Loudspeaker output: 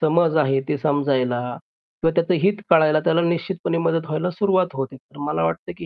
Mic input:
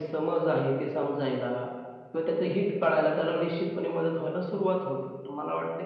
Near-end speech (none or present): none